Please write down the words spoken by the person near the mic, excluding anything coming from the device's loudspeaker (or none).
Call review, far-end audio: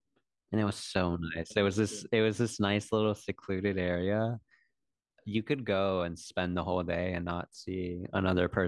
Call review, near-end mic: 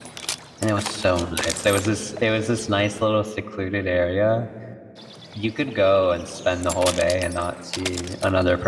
none